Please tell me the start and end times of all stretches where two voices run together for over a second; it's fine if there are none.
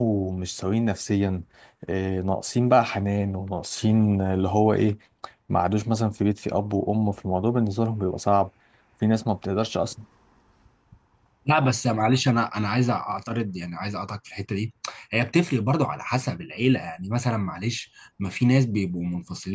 none

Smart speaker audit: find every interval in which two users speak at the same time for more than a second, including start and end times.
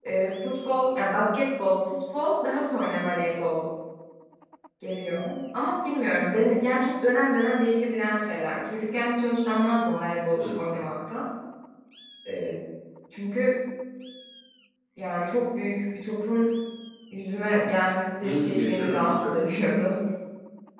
18.2-19.8

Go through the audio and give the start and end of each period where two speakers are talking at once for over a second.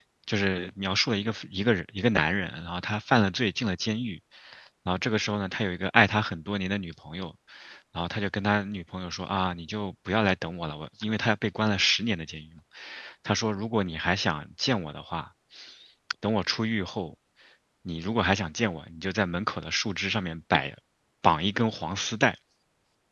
none

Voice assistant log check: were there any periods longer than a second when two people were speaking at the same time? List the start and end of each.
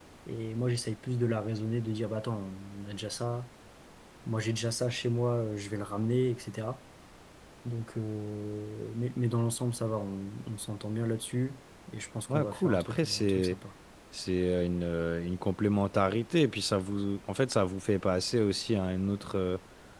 12.3-13.6

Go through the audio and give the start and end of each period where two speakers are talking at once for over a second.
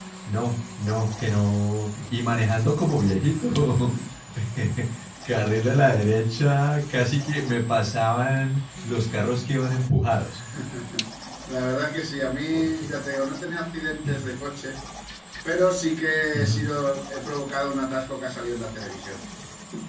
none

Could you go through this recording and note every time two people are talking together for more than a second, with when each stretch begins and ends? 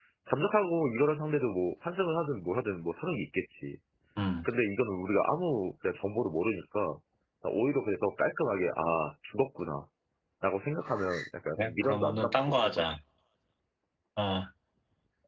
11.6-12.8

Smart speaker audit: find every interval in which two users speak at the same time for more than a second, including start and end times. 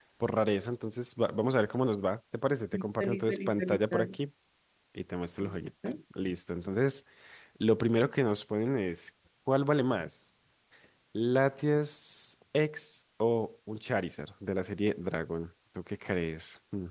2.7-4.2

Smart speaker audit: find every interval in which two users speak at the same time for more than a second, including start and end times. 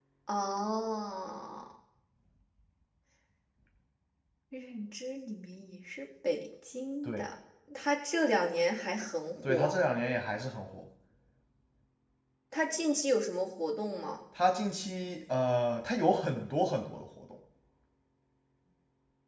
none

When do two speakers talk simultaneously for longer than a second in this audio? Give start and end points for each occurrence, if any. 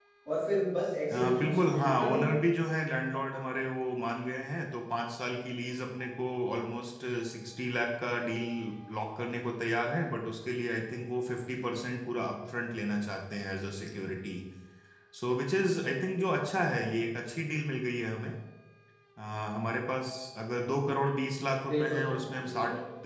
1.1-2.4

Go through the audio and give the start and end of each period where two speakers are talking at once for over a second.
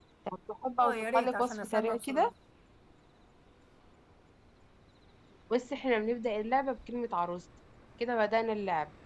0.8-2.3

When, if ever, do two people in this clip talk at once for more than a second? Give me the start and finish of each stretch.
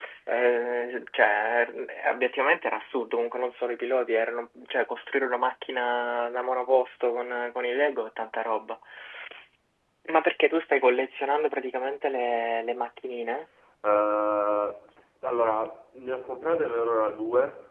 none

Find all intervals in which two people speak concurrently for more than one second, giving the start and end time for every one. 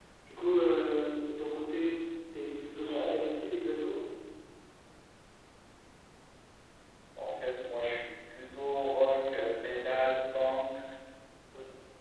none

